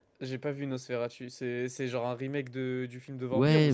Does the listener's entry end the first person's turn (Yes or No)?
Yes